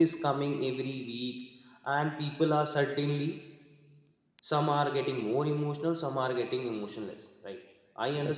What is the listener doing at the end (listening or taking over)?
listening